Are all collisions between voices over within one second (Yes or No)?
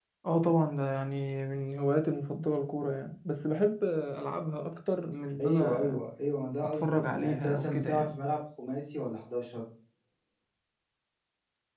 No